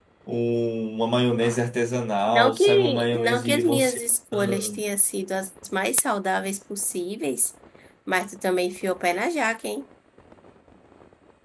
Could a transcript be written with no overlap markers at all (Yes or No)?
No